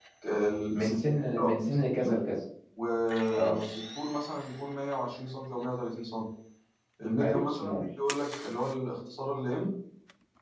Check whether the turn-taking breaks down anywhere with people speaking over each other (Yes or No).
Yes